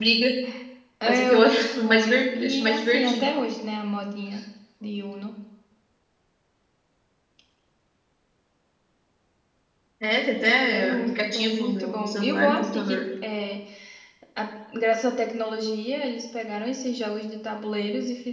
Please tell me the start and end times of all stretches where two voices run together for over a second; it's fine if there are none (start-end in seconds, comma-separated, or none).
1.0-3.3, 10.7-13.0